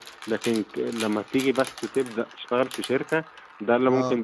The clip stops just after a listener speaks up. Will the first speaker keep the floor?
Yes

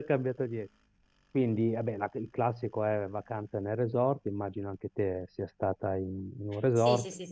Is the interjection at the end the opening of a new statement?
Yes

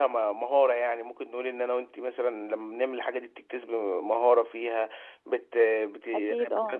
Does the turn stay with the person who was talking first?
Yes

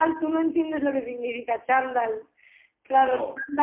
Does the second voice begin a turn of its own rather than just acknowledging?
No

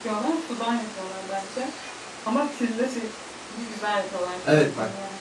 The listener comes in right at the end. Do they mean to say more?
Yes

